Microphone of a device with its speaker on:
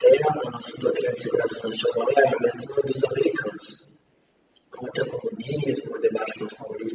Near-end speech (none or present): none